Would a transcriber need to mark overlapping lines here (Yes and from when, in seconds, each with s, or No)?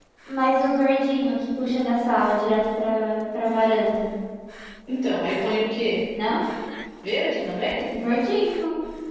No